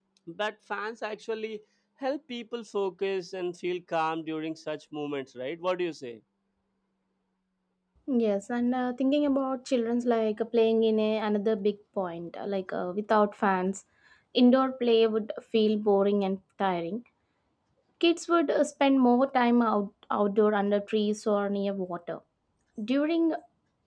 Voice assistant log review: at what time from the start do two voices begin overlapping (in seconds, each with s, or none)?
none